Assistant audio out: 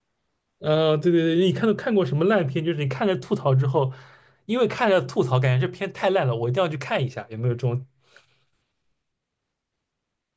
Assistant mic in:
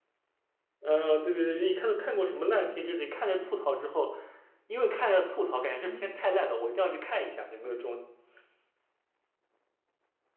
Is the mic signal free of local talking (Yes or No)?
No